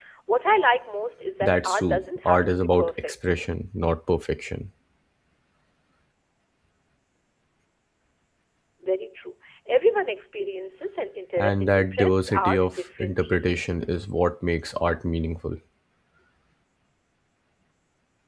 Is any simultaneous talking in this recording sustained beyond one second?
Yes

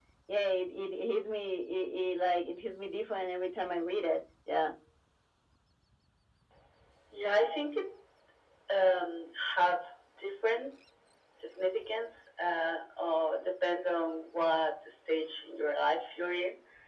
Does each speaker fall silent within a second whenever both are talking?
Yes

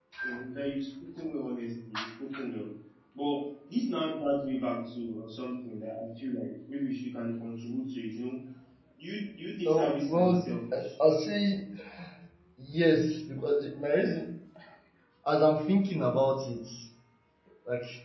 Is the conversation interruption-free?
No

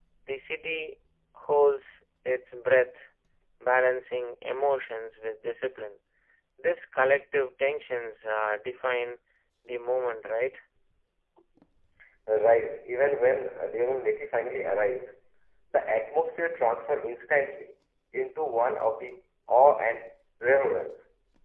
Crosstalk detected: No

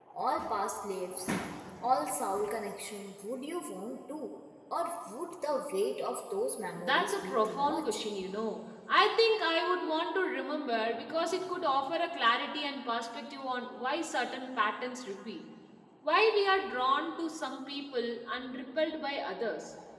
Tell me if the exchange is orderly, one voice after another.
No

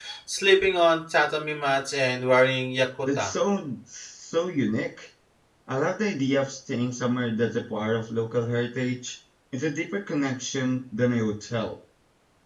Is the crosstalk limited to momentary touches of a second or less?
Yes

